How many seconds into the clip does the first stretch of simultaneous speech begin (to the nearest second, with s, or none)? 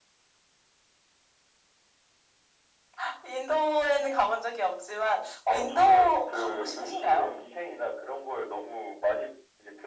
5 s